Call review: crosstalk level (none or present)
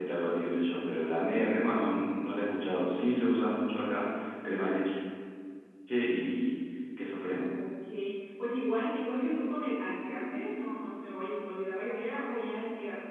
none